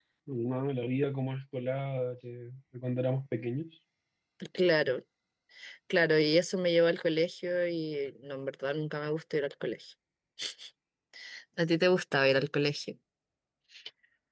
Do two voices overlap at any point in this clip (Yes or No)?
No